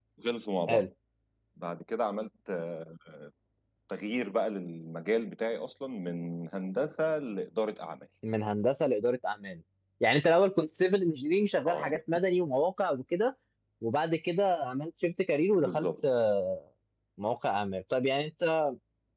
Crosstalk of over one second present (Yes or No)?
No